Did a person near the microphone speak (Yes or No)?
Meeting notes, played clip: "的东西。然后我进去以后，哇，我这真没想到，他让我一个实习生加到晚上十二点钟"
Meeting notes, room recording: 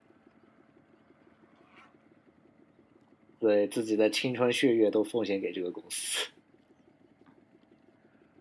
Yes